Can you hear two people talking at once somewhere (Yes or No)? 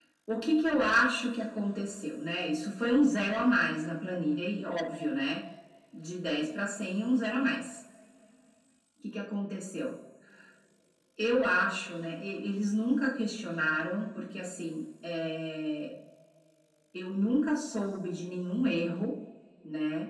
No